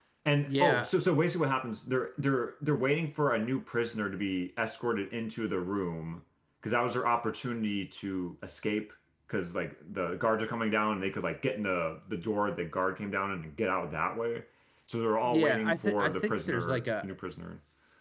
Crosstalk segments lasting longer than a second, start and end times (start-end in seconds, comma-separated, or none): 15.2-17.1